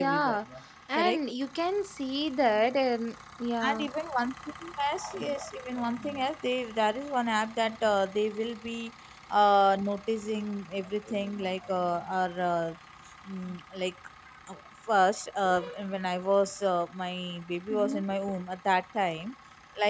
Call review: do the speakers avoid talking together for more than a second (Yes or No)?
Yes